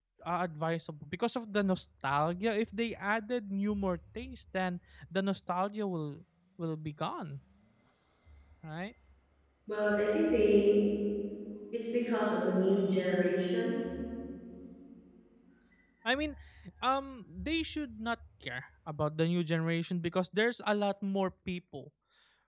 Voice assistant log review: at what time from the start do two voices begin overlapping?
none

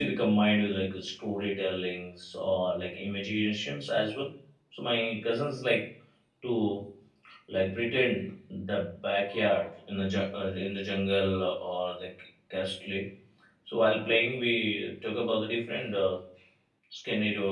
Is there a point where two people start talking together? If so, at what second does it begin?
none

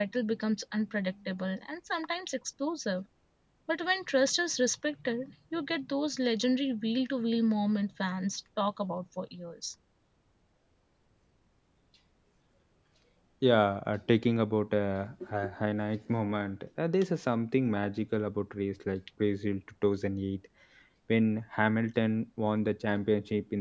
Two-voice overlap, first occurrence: none

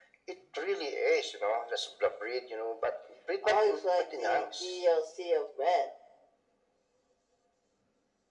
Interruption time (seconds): 3.4 s

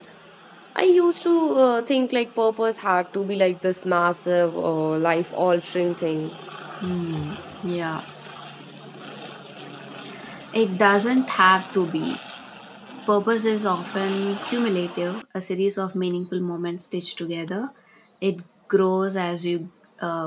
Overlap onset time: none

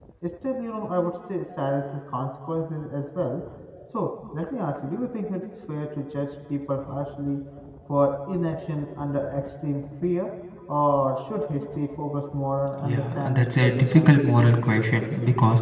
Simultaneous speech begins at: 12.8 s

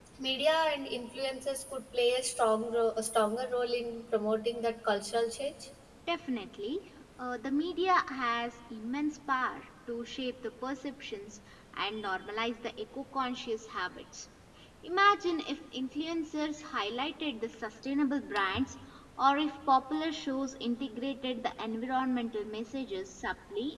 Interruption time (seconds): none

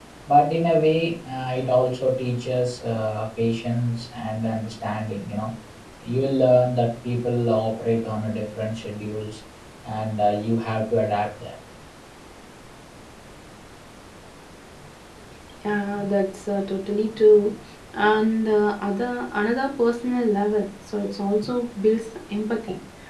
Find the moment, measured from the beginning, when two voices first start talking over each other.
none

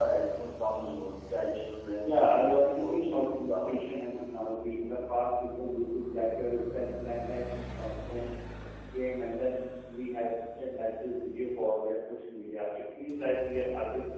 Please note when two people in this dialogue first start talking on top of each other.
2.0 s

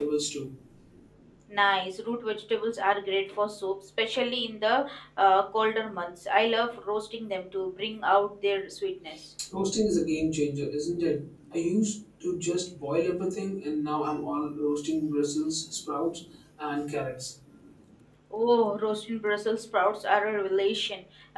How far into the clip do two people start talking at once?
none

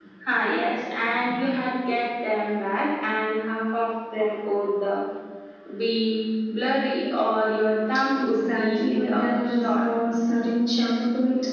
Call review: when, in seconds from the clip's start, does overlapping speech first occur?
8.2 s

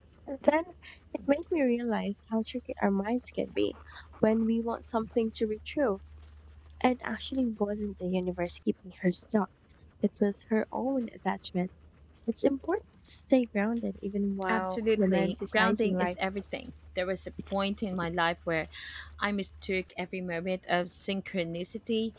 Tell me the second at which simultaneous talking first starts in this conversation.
14.4 s

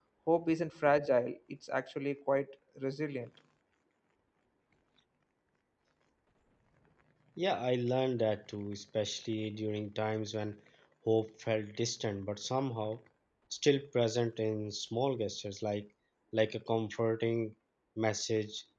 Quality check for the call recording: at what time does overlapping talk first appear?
none

